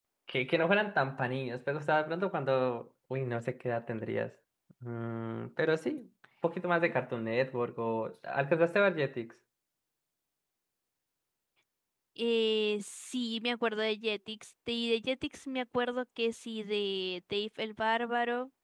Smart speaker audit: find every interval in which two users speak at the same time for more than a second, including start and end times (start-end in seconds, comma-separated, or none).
none